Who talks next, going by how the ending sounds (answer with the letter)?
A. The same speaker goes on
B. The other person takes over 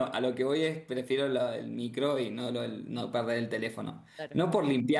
A